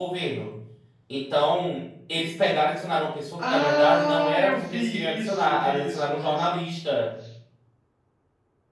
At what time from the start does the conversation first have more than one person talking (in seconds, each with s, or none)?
3.4 s